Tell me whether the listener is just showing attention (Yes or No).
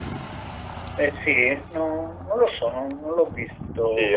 No